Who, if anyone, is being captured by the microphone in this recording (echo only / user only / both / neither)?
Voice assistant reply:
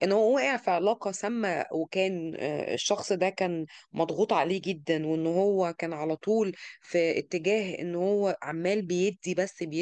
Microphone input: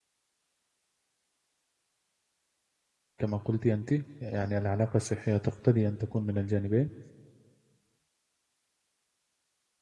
user only